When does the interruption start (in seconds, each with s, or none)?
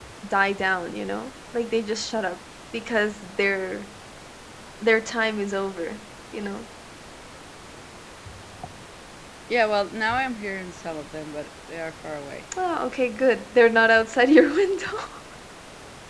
none